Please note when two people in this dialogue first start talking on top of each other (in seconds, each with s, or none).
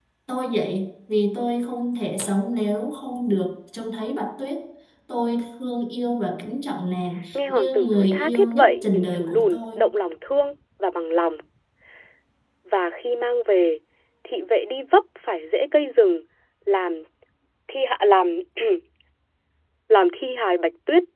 7.3 s